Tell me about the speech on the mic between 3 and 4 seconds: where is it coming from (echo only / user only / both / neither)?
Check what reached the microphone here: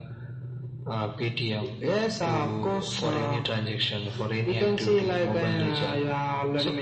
echo only